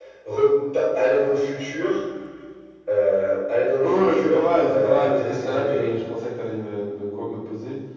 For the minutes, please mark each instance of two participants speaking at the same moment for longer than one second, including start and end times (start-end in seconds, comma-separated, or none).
3.8-6.0